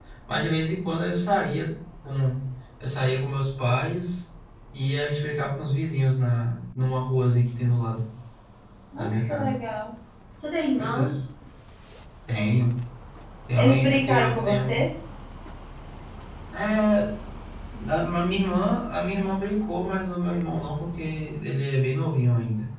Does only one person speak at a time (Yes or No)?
No